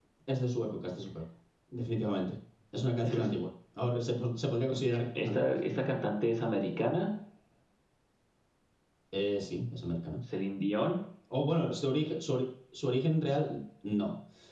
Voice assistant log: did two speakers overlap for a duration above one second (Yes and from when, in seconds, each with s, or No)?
No